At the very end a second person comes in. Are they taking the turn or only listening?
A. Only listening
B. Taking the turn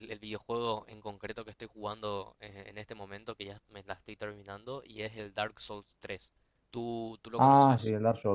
B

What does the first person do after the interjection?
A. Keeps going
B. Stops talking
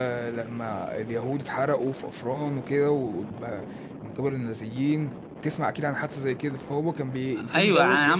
B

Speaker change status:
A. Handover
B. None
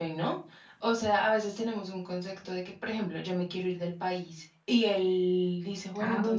B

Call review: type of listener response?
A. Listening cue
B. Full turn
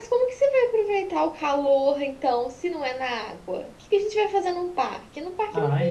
B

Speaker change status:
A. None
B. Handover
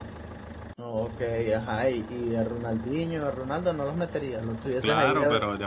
B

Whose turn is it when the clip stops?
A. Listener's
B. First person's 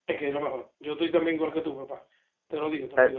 A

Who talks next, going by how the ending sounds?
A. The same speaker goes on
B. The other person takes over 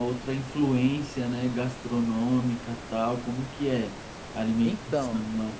B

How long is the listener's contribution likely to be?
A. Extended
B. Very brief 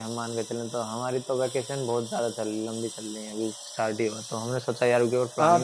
A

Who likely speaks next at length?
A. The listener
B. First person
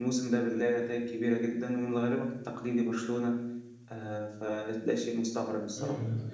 A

